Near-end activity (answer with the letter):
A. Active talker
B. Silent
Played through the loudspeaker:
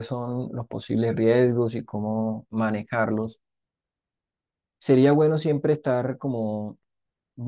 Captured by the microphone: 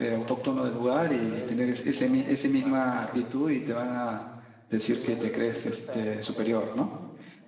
A